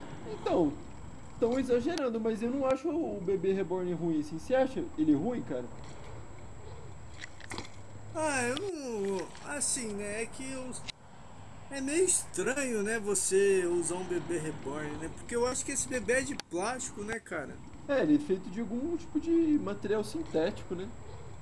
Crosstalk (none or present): none